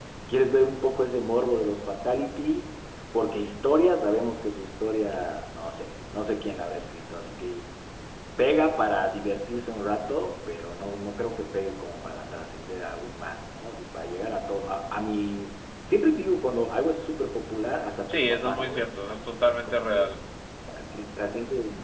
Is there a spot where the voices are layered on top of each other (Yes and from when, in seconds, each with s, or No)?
Yes, from 18.1 s